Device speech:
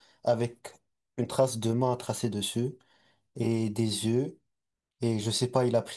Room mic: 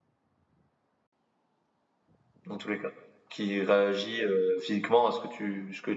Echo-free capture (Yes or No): Yes